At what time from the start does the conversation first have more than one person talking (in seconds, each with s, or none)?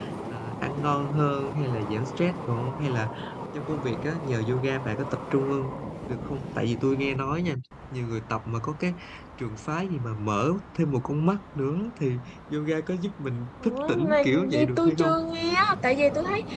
13.6 s